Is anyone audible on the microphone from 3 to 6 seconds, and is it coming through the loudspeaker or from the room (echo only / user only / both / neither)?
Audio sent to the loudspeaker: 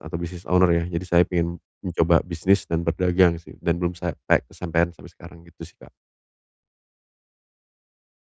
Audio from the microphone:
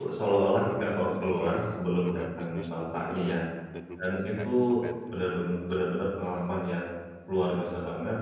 both